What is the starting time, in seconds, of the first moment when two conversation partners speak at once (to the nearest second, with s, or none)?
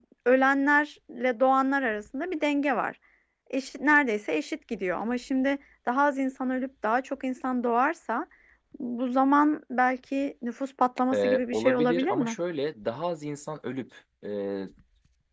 11 s